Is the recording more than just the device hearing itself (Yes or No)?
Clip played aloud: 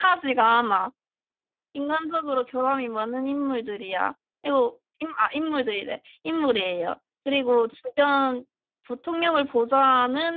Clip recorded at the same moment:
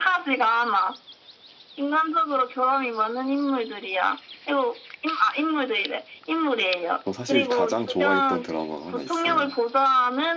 Yes